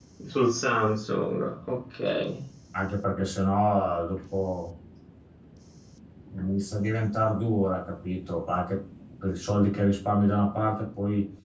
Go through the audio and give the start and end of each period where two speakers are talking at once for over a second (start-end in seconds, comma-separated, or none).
none